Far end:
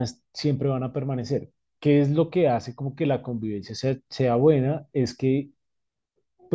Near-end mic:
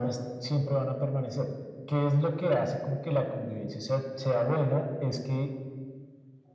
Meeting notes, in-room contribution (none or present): none